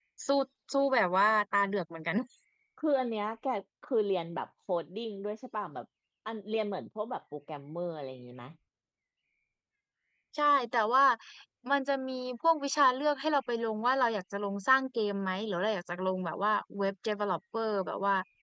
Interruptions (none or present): none